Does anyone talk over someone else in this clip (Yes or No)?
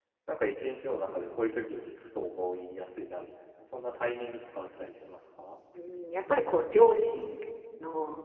No